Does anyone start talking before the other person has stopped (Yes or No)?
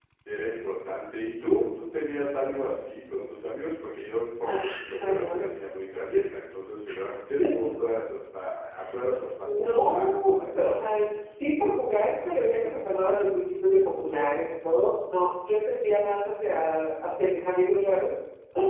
Yes